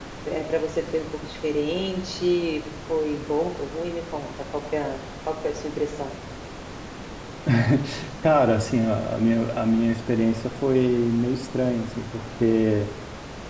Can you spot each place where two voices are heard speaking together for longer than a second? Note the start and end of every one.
none

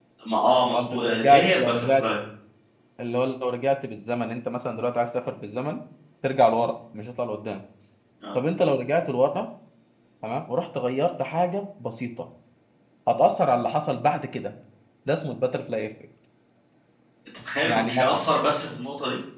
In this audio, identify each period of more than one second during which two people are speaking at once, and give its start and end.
0.6-2.0

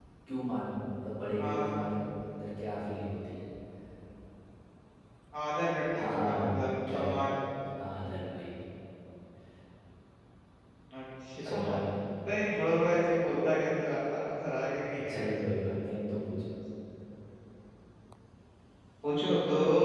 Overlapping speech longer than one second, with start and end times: 6.0-7.2

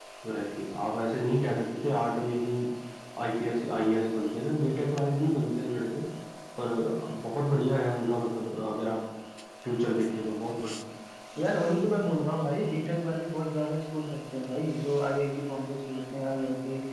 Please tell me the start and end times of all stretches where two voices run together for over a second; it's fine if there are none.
none

